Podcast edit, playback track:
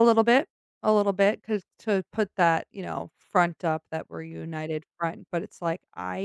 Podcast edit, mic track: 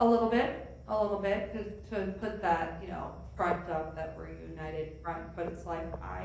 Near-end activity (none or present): none